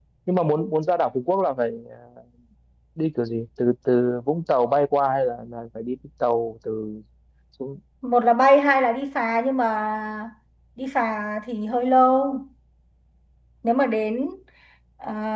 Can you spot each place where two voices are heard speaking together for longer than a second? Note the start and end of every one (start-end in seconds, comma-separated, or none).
none